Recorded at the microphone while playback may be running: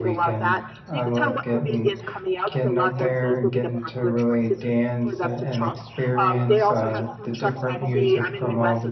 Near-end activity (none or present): present